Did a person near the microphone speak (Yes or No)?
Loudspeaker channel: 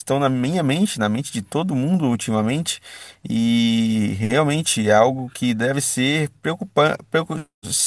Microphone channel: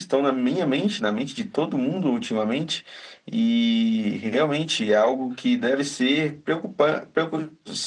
No